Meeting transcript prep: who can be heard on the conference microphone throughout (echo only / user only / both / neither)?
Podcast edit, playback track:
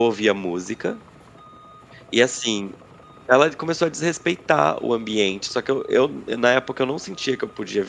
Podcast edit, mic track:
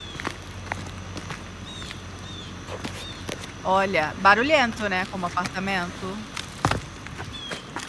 user only